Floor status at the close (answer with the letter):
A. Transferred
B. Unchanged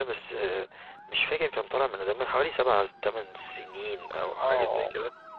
A